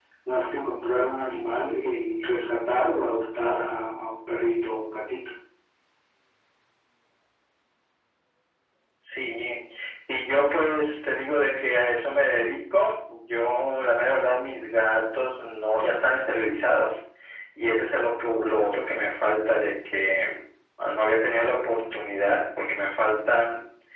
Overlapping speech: No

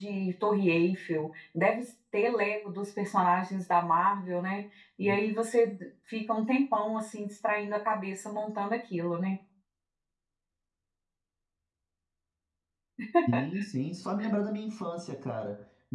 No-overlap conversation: Yes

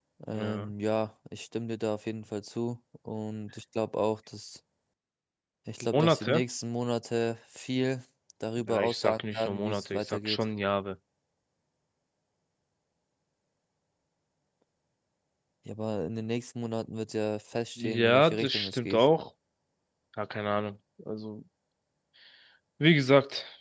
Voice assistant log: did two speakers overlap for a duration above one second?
Yes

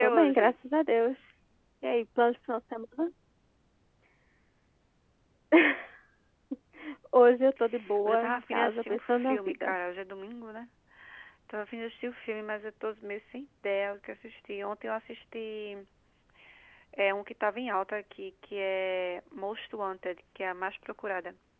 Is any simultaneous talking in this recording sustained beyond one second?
Yes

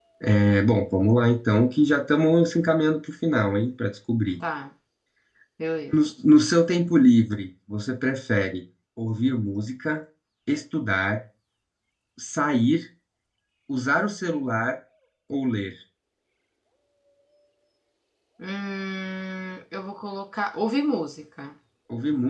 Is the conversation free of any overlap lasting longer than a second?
Yes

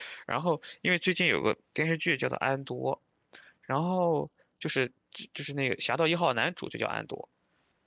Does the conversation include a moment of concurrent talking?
No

